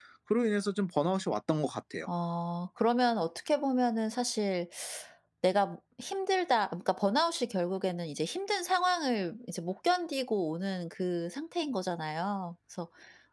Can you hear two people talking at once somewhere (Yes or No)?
No